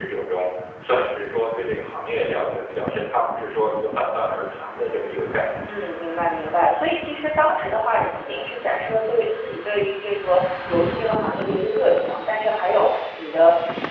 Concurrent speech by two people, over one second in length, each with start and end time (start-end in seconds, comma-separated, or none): none